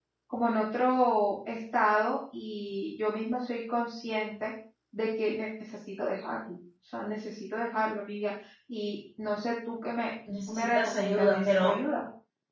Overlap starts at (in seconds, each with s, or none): 10.3 s